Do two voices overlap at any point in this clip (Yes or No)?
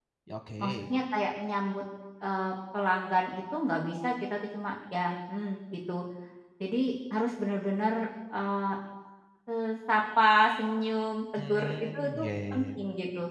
Yes